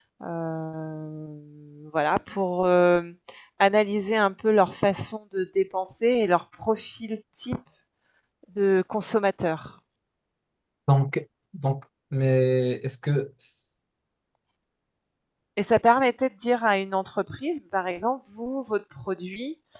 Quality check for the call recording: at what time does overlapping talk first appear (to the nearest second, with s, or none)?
none